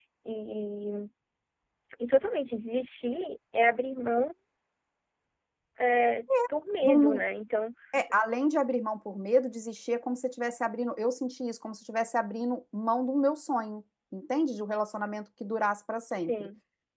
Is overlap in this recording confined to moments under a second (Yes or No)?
Yes